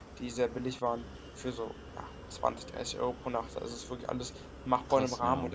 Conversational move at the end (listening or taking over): listening